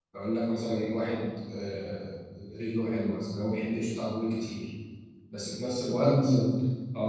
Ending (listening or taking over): listening